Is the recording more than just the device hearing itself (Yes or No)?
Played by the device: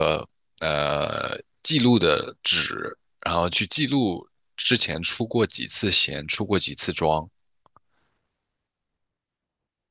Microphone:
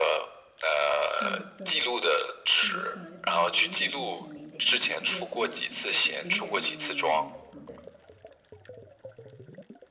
Yes